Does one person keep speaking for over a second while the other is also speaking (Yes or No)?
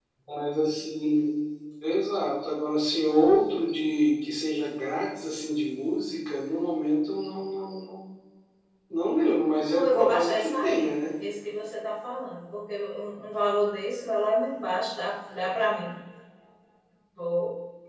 Yes